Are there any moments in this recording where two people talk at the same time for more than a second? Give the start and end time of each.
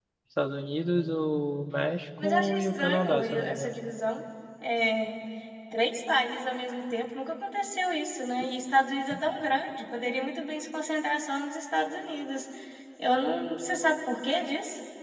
2.2-3.8

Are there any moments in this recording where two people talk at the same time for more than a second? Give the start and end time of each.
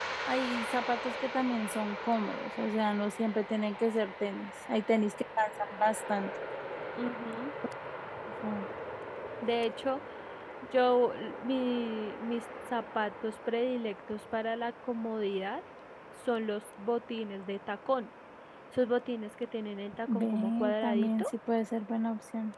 20.1-21.3

